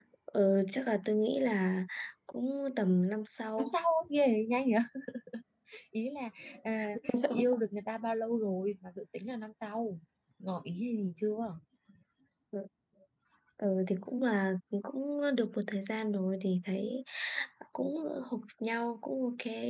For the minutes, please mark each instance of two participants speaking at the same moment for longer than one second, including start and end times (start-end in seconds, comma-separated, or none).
none